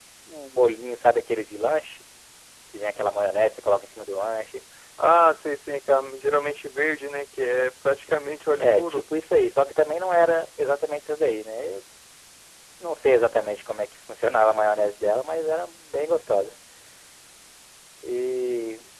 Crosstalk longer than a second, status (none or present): none